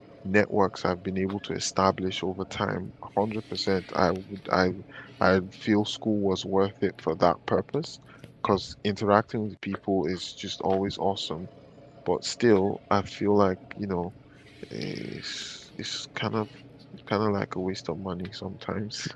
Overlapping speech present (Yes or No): No